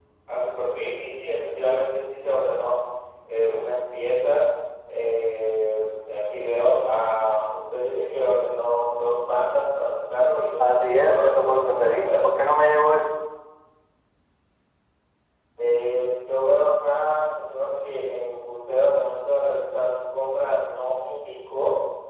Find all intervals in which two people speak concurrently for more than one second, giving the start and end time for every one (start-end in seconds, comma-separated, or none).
10.6-12.1